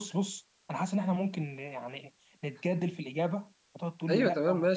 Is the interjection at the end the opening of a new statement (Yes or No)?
Yes